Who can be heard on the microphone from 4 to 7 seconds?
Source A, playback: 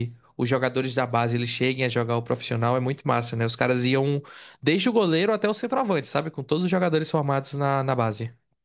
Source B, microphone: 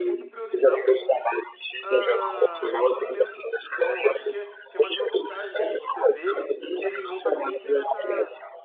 both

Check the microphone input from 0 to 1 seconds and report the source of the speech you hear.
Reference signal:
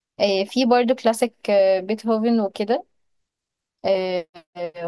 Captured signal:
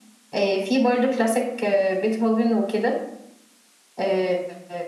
echo only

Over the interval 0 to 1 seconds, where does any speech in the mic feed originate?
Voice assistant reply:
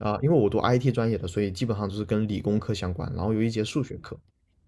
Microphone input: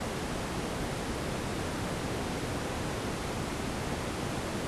neither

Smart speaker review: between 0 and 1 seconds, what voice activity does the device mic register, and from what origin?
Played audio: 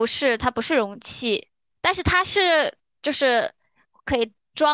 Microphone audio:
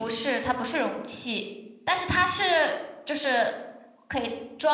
echo only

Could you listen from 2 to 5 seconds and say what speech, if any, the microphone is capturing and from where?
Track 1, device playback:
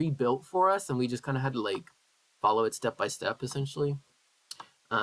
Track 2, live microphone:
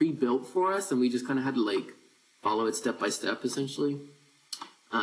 echo only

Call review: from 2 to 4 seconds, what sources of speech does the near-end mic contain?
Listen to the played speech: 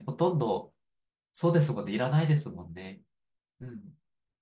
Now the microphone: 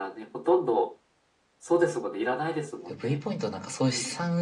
both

